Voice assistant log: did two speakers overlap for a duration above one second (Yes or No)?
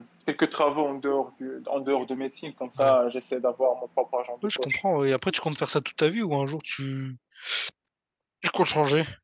No